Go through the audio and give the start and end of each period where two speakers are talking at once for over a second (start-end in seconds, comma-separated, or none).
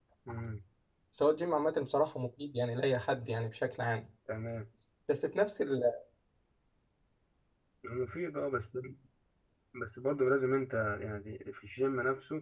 none